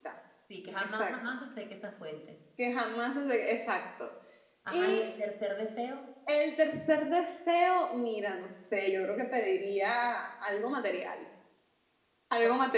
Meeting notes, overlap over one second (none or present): none